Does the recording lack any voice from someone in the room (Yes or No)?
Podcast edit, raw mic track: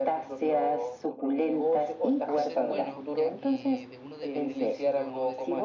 No